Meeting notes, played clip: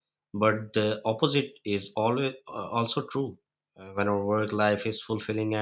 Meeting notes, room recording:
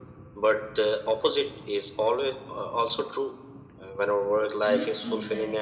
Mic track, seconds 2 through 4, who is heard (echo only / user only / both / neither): echo only